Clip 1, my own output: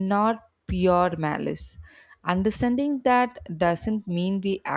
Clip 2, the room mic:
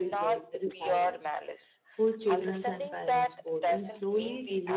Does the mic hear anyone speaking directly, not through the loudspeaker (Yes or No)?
Yes